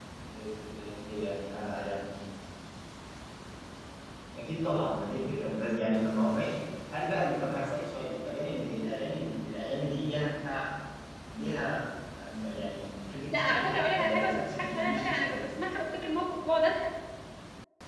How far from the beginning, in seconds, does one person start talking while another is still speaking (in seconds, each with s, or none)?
13.3 s